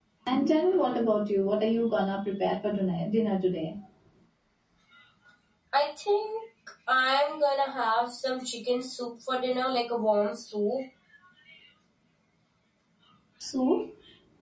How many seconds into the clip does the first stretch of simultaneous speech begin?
none

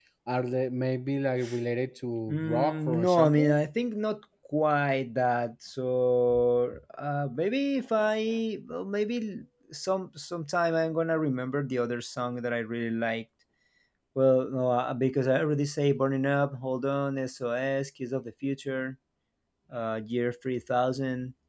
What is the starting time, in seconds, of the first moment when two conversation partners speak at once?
2.3 s

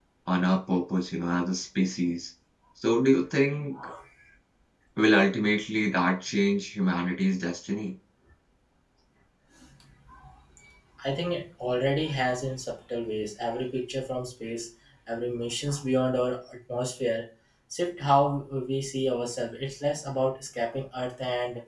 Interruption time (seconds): none

